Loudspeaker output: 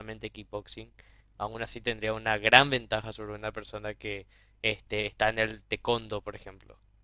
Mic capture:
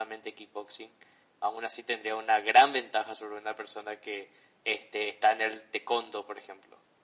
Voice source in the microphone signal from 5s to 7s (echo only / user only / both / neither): echo only